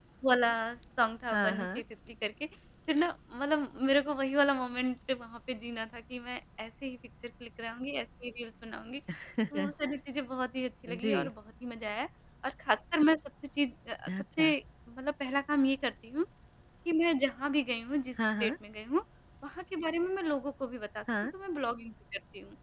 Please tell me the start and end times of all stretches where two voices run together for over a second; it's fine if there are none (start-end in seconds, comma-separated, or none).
none